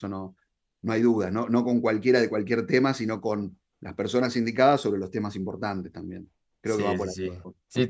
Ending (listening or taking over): taking over